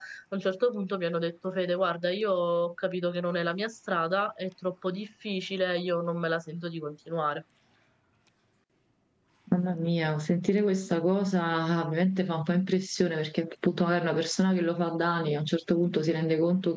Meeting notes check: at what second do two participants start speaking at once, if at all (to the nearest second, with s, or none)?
none